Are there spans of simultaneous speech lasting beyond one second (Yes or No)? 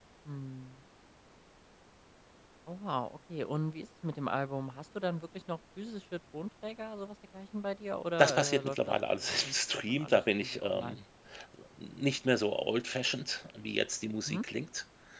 Yes